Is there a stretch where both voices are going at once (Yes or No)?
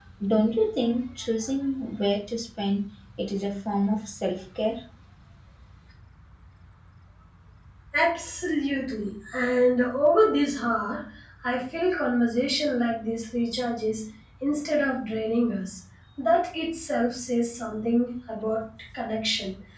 No